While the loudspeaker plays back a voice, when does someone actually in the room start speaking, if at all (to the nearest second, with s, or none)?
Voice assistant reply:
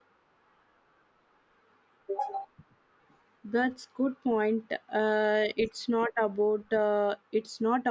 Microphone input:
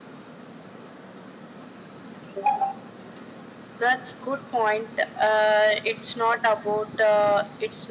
none